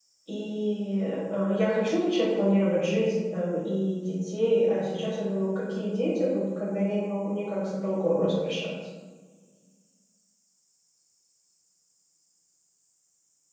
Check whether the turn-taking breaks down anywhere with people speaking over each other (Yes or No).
No